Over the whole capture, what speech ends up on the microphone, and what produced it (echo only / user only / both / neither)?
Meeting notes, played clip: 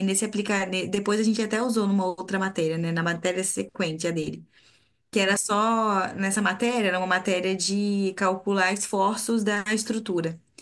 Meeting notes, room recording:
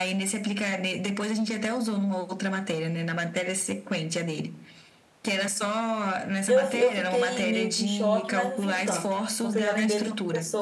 both